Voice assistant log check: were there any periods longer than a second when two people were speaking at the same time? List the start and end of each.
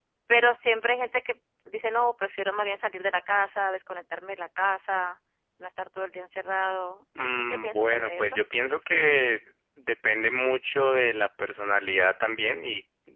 7.2-8.4

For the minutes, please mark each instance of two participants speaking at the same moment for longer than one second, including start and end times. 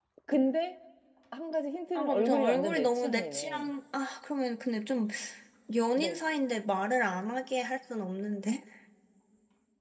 2.0-3.7

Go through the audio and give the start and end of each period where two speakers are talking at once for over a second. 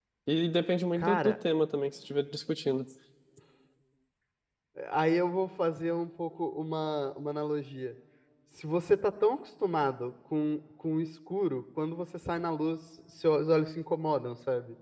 none

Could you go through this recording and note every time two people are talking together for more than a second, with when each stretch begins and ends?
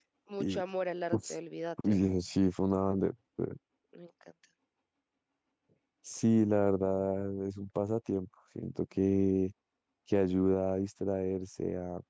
none

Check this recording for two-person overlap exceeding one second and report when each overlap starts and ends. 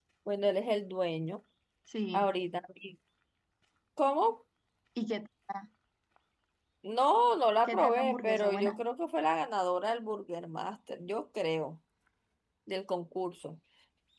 7.6-8.8

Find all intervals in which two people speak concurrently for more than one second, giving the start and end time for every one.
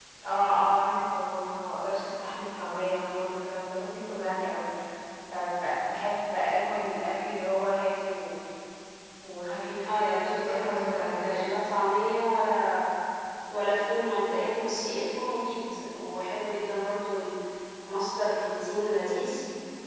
9.9-11.5

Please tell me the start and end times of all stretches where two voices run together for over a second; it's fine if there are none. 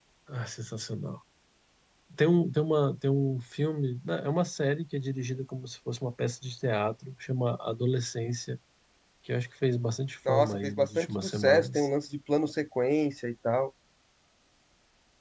10.3-11.9

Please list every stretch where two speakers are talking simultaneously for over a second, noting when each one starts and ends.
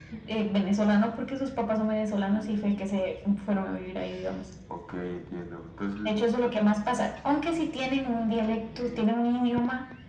none

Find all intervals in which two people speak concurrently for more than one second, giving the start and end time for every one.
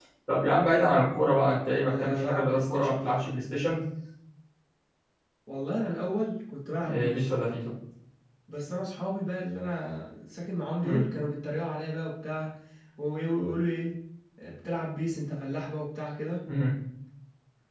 1.8-3.3

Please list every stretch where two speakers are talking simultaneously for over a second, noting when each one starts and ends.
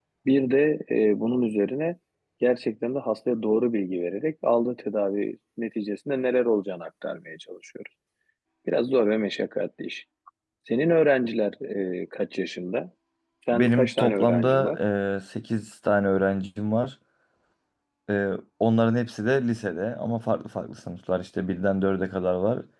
13.5-14.8

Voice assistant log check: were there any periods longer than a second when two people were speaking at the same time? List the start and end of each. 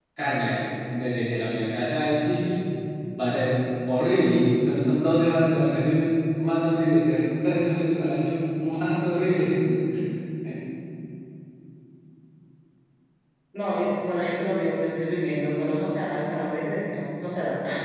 none

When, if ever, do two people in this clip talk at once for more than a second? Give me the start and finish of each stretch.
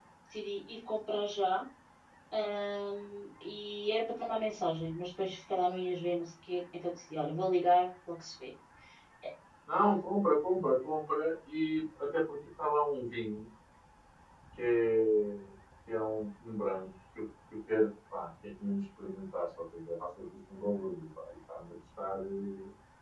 none

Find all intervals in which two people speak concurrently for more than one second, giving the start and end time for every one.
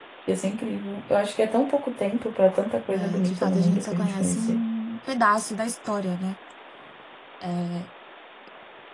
2.9-4.6

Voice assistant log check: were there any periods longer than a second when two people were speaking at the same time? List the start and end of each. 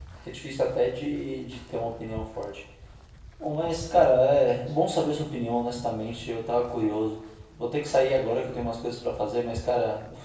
none

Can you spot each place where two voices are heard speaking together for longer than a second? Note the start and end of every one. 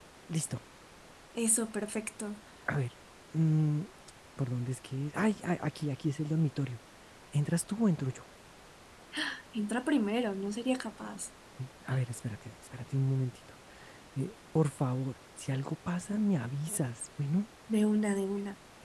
none

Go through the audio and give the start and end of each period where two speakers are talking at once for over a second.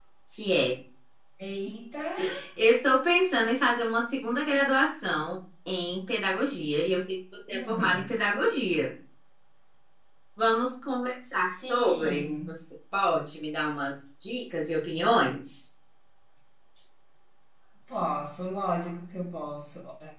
11.3-12.5

